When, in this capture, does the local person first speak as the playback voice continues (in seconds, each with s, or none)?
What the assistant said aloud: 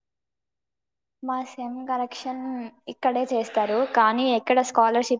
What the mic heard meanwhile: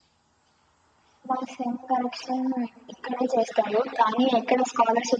none